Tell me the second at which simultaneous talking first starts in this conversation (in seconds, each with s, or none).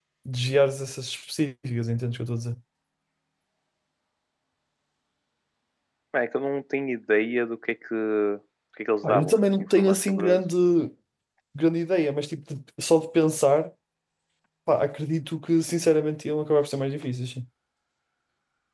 9.0 s